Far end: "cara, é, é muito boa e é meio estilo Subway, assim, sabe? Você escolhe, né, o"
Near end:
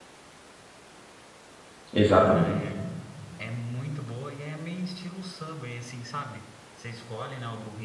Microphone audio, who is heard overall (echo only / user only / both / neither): both